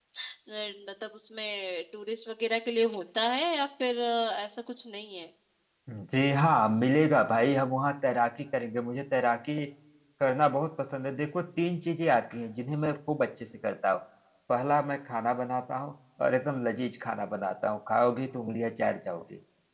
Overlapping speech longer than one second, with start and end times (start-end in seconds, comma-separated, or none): none